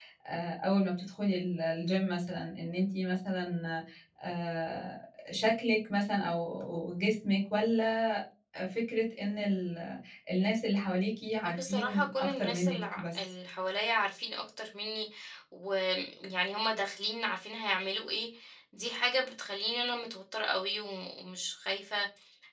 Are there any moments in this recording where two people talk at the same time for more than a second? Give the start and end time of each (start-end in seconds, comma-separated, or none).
11.6-13.3